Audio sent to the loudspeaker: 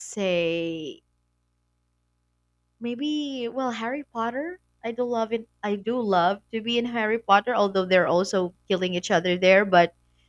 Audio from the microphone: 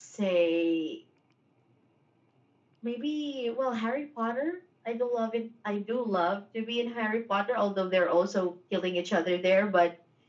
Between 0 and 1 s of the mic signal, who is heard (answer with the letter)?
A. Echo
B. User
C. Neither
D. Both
A